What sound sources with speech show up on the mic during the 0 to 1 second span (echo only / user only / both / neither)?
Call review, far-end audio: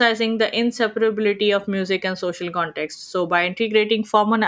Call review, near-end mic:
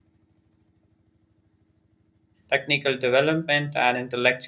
neither